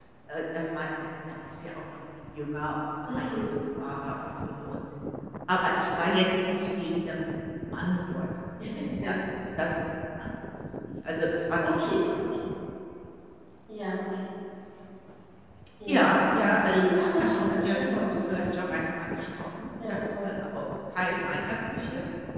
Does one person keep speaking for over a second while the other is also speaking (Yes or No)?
Yes